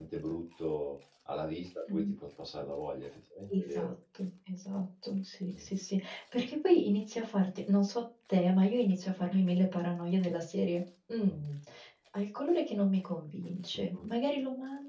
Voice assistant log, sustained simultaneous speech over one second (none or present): none